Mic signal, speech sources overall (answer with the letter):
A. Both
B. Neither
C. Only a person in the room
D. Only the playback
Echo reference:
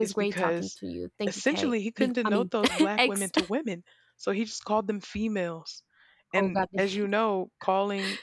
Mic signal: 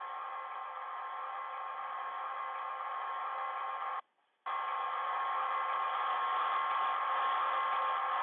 B